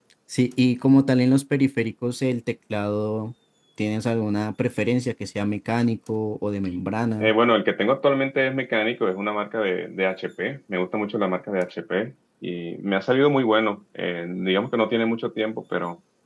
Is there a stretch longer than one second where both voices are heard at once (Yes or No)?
No